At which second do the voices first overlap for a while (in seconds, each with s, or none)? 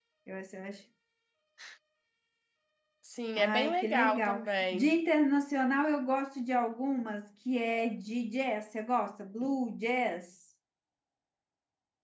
3.4 s